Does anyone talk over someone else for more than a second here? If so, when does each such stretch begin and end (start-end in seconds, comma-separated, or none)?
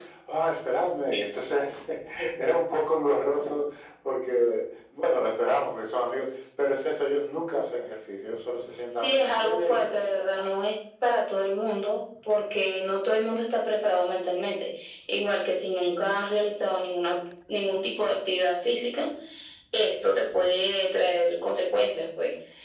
8.9-10.4